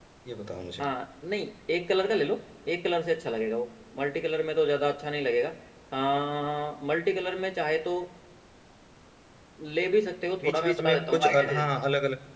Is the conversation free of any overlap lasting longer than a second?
No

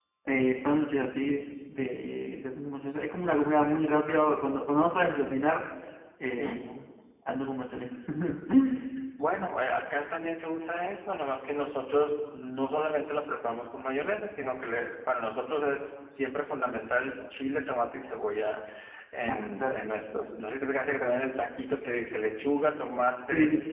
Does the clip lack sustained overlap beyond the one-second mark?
Yes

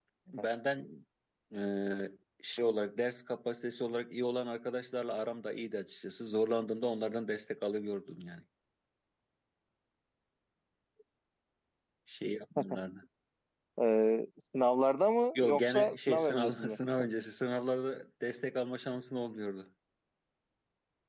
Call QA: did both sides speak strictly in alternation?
No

